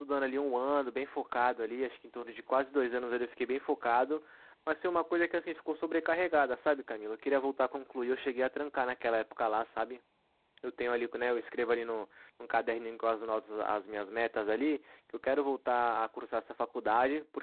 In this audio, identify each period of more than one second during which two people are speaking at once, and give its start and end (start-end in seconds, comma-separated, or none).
none